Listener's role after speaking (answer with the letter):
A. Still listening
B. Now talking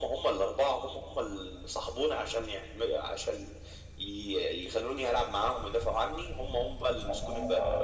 B